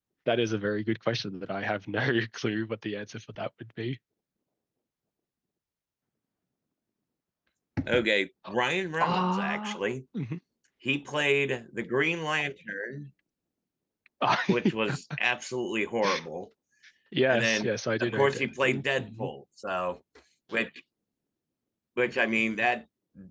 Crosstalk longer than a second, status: present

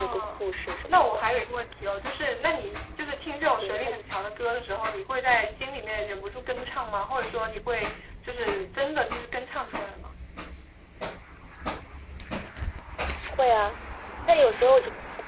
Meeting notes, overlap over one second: none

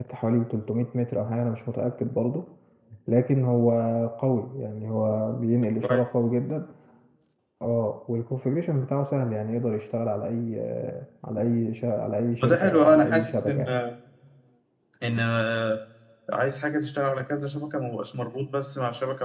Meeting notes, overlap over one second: present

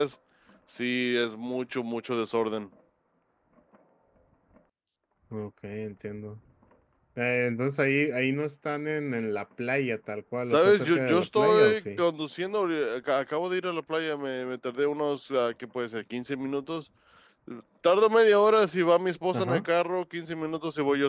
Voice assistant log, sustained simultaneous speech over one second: present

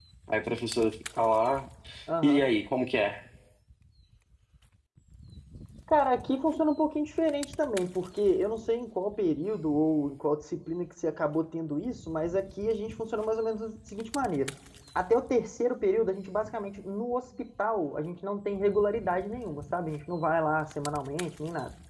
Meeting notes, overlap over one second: none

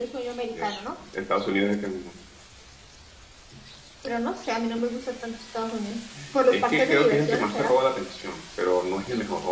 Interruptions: present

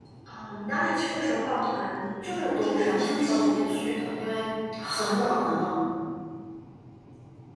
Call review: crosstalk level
present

